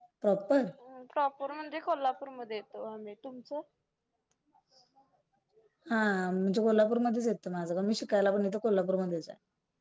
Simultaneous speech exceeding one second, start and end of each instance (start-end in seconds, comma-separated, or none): none